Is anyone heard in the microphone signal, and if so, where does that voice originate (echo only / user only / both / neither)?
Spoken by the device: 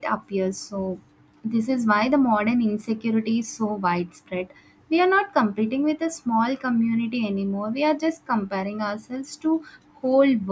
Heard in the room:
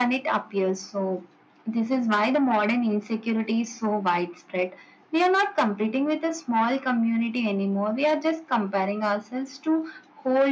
echo only